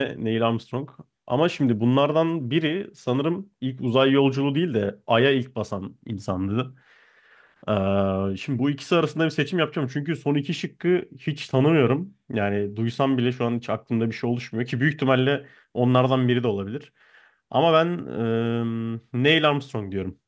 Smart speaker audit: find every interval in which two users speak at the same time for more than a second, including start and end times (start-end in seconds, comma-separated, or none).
none